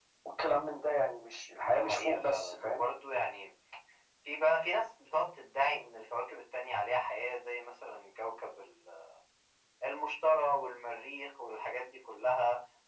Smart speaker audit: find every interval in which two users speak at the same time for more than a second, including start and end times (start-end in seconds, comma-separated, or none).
1.6-2.8